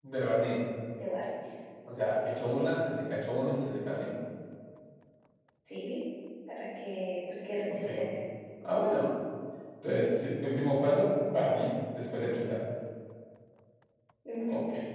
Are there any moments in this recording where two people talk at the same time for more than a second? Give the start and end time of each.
none

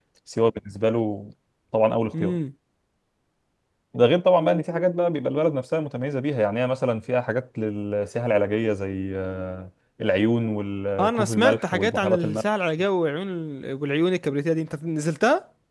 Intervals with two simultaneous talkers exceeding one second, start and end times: 11.0-12.4

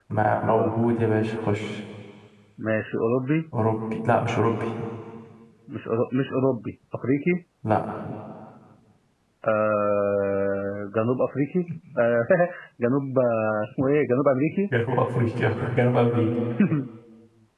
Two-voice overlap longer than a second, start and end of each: none

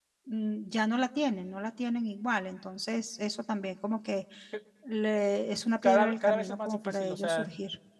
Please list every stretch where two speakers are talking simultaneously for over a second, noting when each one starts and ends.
5.8-7.5

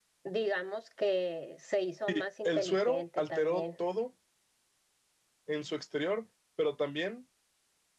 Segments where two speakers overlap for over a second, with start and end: 2.1-3.6

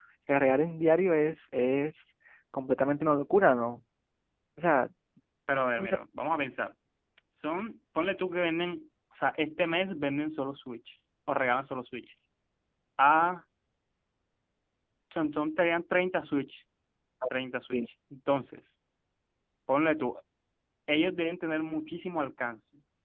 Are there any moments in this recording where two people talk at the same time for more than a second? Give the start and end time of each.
none

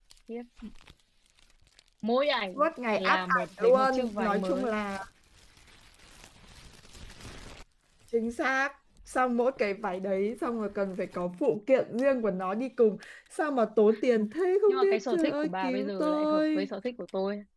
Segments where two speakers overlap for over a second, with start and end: 3.0-4.8, 14.7-16.7

